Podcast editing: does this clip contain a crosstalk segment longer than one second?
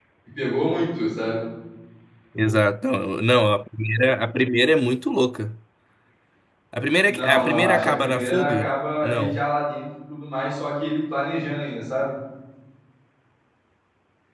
Yes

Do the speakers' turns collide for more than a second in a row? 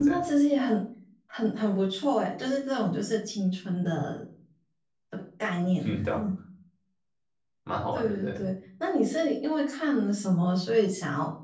No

